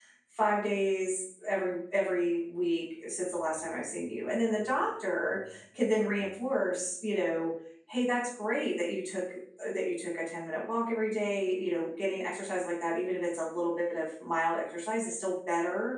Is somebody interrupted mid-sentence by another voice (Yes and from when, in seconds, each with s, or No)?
No